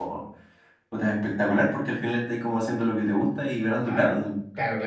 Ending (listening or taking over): taking over